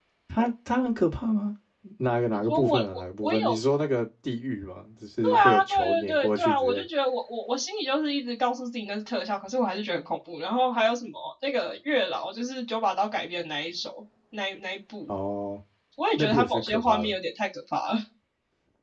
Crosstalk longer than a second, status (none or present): present